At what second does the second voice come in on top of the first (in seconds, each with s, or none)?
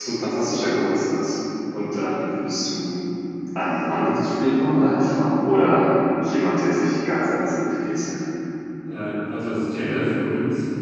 none